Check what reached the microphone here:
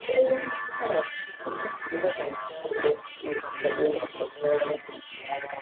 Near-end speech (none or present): none